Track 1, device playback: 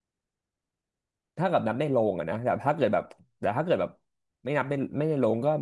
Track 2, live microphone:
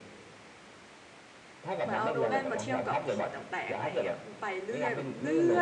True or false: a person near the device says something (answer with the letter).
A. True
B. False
A